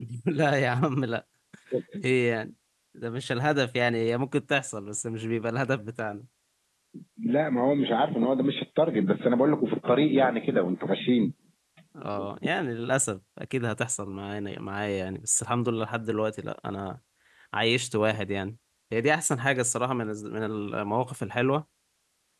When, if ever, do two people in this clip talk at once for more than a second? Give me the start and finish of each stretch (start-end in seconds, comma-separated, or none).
none